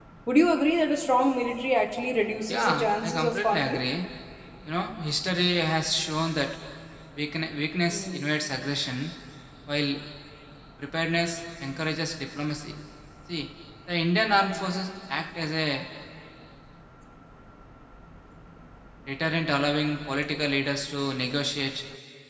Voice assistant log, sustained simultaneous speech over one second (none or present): present